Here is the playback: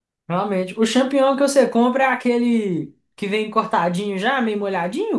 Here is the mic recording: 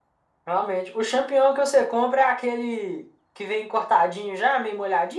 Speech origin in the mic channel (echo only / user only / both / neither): echo only